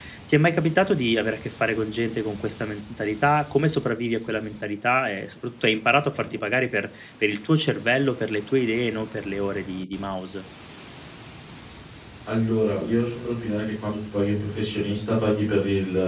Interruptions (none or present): none